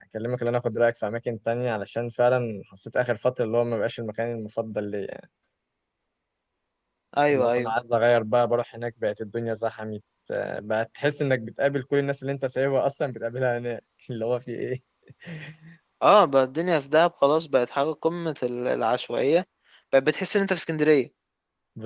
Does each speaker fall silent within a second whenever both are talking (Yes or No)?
Yes